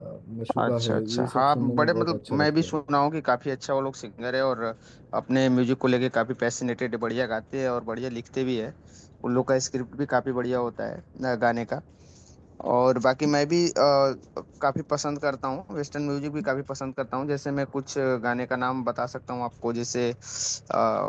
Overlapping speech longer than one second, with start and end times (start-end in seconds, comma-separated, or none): 0.6-2.7